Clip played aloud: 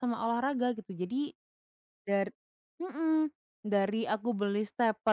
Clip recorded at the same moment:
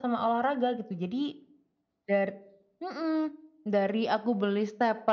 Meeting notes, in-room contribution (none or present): none